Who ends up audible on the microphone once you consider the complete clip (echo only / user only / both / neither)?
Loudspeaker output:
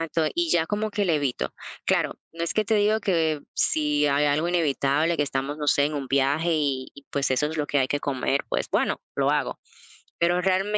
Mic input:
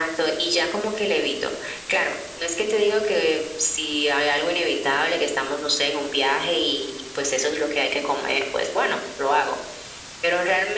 echo only